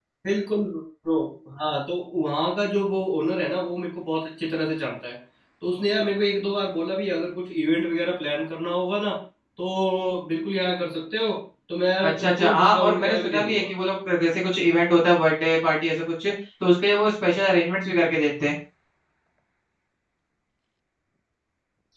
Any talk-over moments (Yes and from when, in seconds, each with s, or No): Yes, from 12.1 s